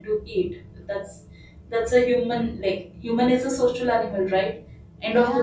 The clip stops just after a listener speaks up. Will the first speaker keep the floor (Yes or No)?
Yes